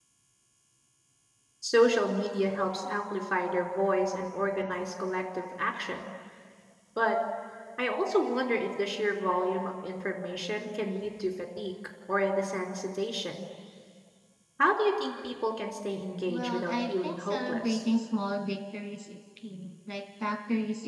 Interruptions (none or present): present